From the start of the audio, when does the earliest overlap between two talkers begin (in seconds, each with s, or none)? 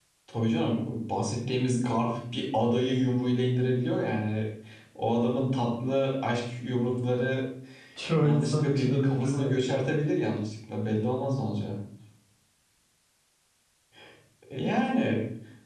8.2 s